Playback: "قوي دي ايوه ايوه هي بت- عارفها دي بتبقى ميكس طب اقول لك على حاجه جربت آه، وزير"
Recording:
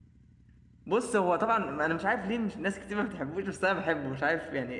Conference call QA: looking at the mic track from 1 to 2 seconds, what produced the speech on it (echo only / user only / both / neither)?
user only